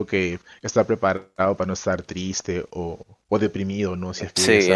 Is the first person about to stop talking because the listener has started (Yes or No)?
Yes